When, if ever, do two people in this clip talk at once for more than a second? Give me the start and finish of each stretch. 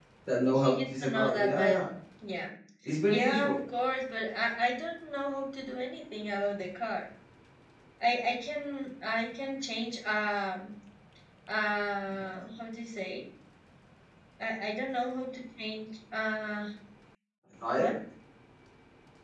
0.6-1.8

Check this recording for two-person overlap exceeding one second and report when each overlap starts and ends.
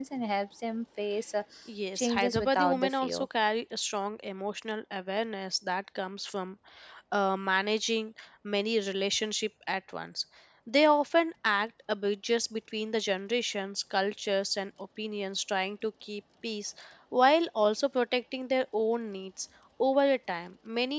1.9-3.3

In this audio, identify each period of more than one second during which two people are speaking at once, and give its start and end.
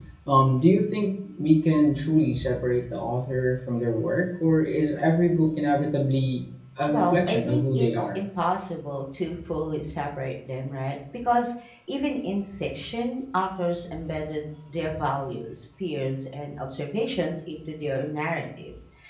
6.9-8.2

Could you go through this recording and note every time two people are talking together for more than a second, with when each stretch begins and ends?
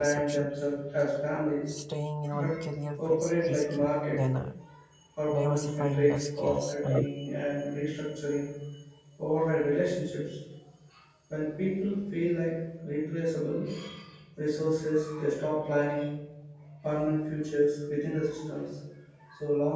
3.0-4.2, 5.3-7.1

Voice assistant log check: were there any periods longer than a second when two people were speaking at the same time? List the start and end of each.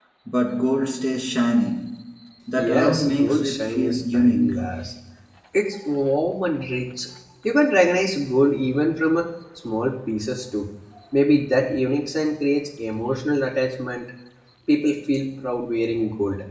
2.6-4.5

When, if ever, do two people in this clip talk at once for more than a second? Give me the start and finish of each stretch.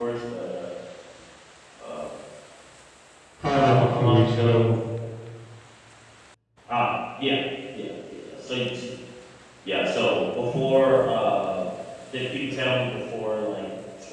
3.5-4.7

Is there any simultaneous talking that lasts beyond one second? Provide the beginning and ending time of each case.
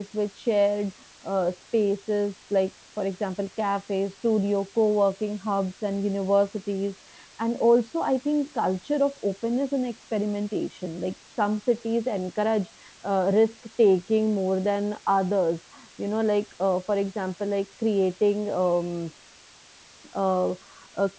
none

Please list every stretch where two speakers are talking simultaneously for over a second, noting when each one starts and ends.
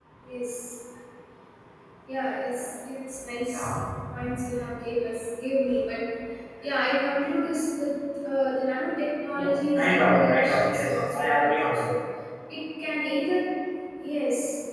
9.3-11.8

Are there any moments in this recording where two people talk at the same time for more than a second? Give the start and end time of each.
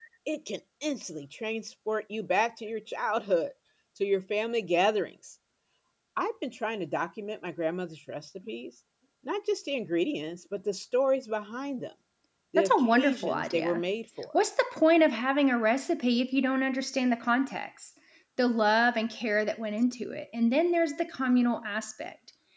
12.6-13.8

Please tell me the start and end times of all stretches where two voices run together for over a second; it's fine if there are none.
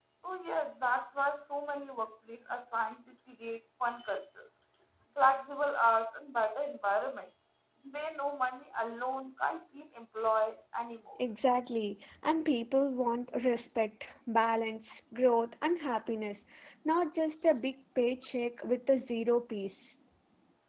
none

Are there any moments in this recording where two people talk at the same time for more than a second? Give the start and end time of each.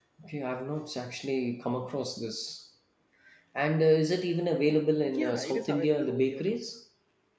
5.1-6.6

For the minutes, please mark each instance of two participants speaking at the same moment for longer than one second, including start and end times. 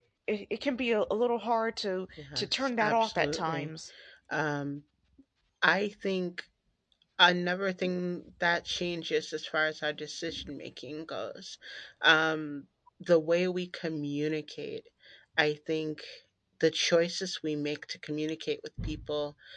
2.2-3.7

